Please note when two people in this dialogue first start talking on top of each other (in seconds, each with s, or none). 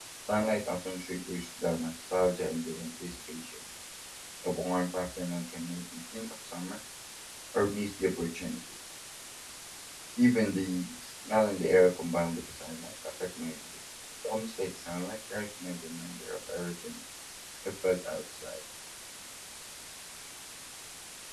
none